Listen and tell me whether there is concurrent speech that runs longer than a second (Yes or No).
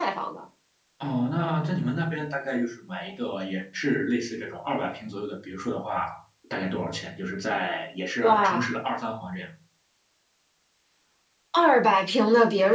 No